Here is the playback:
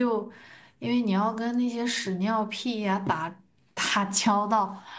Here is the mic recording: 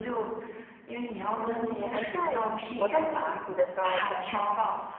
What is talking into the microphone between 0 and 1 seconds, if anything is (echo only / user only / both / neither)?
echo only